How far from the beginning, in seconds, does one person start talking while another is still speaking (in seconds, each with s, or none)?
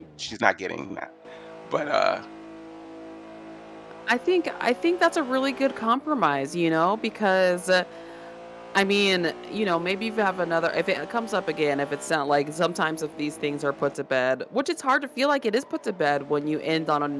none